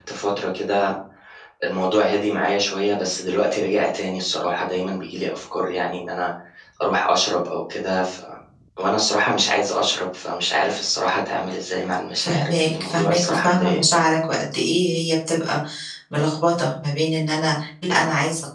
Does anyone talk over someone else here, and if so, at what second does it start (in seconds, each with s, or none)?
12.2 s